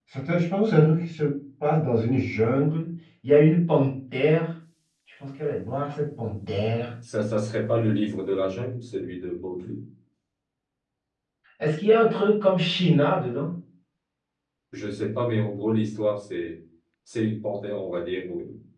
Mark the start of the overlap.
none

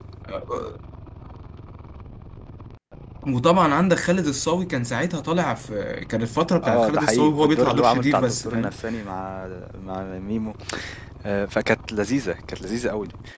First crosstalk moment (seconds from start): 6.6 s

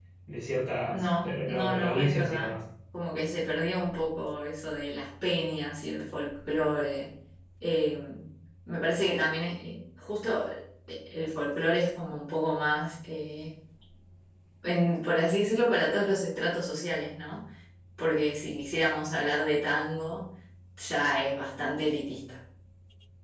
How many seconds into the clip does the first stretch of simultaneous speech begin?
0.9 s

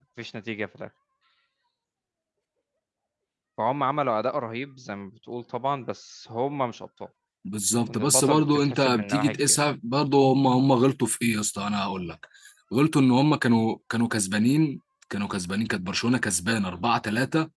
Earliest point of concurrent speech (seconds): 7.9 s

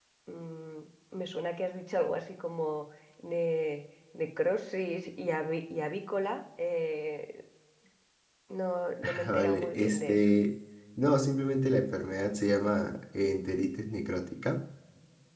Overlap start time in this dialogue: 9.0 s

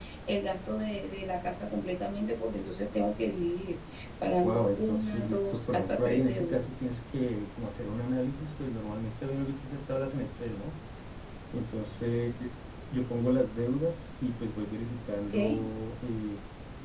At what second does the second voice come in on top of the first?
4.4 s

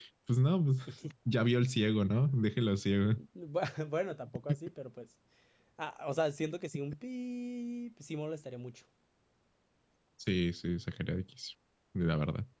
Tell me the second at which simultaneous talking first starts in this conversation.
none

